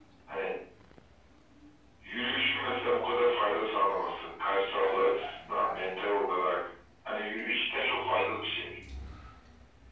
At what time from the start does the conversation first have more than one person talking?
none

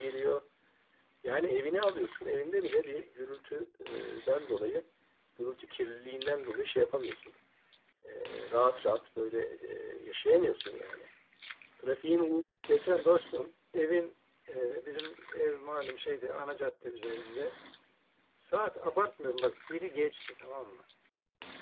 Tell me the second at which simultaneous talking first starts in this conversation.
none

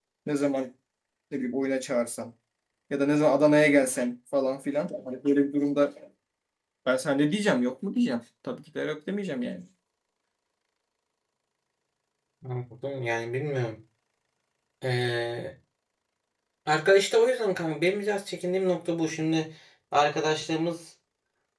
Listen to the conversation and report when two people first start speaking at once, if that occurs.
none

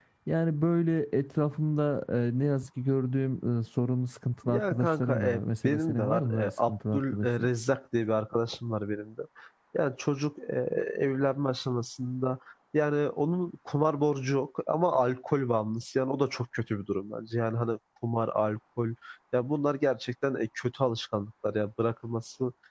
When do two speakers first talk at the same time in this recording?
4 s

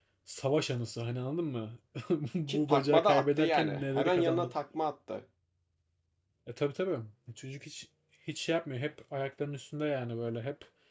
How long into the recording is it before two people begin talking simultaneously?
2 s

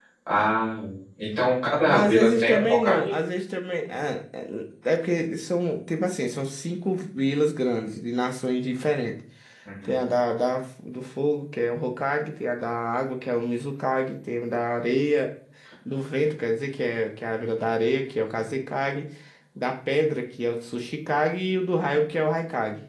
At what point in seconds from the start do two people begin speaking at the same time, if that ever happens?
2 s

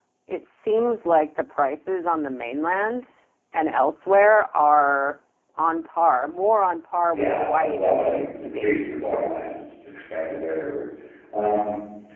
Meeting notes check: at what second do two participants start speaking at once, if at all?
7 s

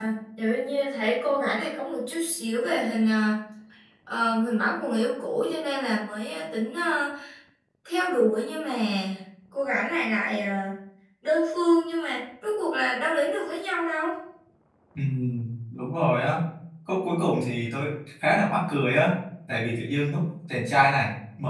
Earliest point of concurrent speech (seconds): none

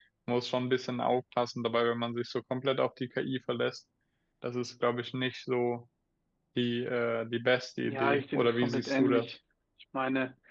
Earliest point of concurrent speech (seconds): 8 s

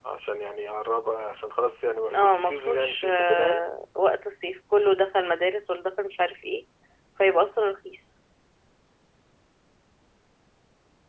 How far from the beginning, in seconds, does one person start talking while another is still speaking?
2 s

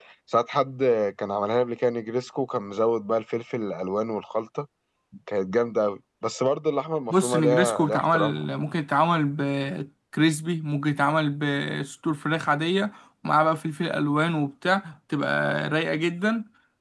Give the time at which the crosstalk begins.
7 s

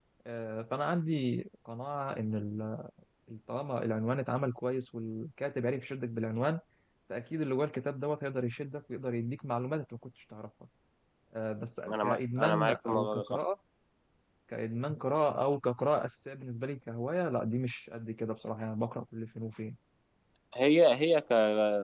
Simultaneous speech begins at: 12 s

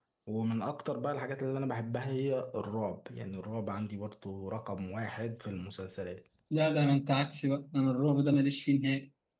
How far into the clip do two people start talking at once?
none

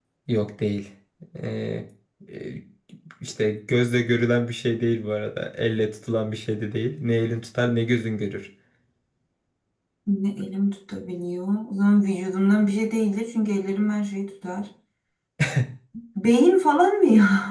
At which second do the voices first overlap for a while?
none

